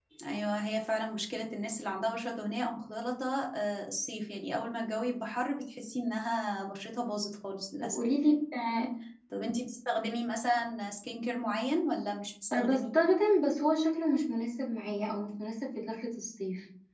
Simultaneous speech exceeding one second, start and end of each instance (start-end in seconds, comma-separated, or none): none